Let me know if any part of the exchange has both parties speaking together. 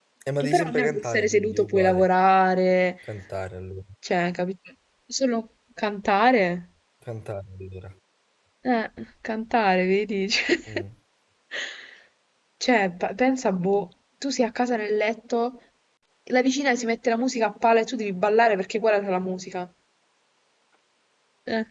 Yes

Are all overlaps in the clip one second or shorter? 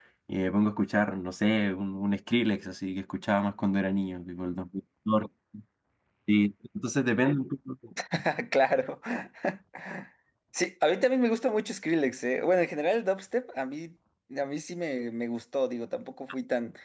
Yes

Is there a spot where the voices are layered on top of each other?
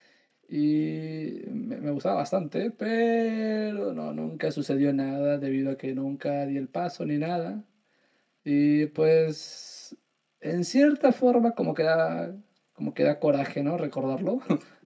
No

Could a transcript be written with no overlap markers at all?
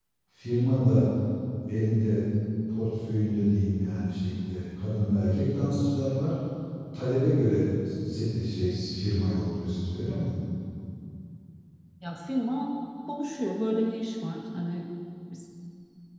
Yes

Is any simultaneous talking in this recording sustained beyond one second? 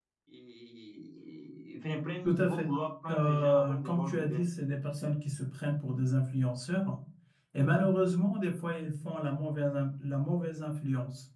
Yes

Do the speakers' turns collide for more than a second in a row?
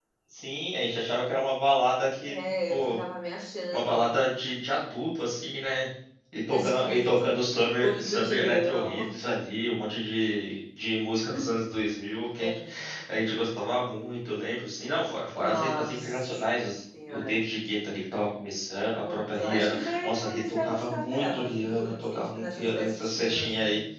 Yes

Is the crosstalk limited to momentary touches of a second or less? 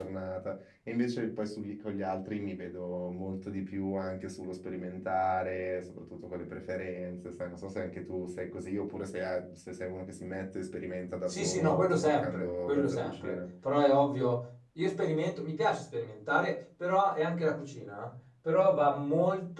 No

